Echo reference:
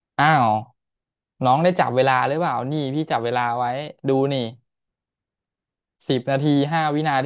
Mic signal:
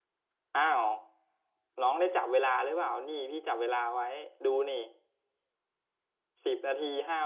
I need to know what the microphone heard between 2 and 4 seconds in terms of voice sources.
echo only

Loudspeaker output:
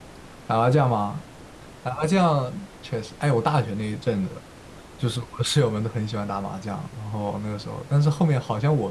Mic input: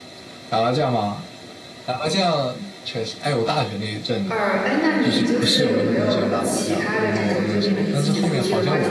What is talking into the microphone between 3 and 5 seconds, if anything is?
both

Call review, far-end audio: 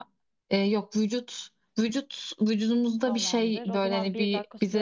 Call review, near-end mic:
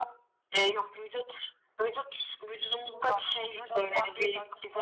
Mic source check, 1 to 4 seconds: echo only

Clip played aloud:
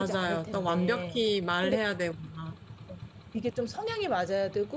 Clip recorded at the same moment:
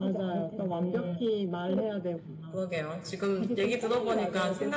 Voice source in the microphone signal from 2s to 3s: both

